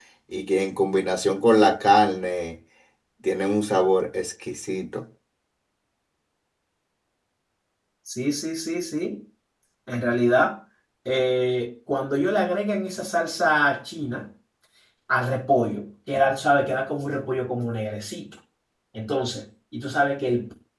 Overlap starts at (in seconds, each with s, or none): none